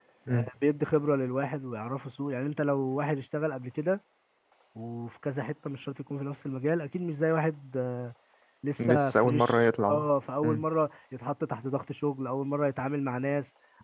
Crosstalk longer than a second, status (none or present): present